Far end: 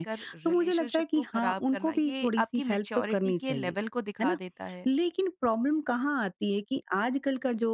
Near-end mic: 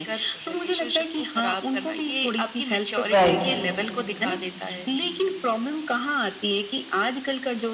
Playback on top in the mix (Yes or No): No